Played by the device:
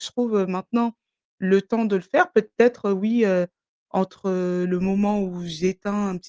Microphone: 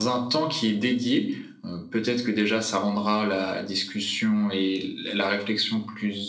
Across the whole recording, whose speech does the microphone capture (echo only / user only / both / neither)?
user only